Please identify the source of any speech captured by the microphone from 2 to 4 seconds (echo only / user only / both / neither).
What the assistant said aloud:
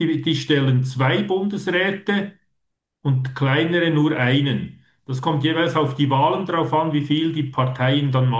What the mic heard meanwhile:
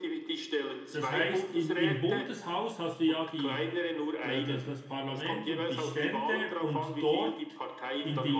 both